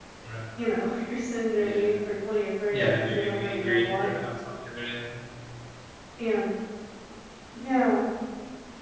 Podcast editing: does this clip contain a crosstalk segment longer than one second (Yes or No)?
Yes